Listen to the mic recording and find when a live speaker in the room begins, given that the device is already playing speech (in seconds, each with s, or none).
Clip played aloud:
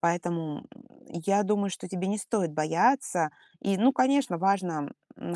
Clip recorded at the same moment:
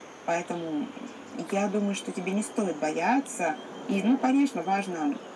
none